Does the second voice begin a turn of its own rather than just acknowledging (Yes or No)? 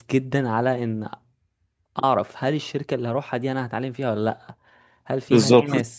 No